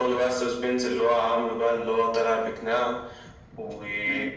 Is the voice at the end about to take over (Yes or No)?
Yes